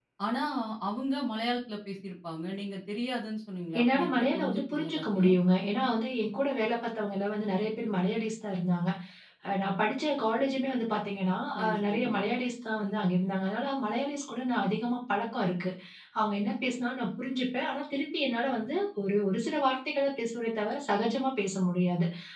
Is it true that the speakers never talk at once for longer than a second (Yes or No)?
No